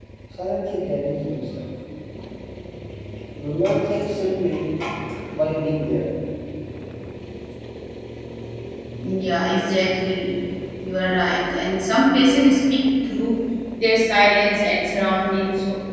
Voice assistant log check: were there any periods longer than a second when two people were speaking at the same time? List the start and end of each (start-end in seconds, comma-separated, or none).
none